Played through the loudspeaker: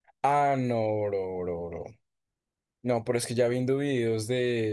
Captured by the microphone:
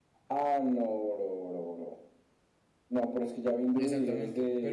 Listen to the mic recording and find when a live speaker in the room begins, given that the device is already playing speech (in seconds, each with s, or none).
3.8 s